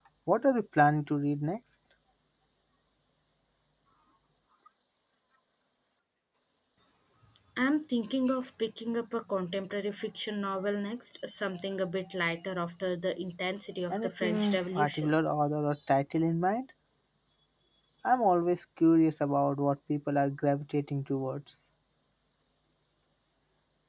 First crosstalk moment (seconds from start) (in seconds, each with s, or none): 13.9 s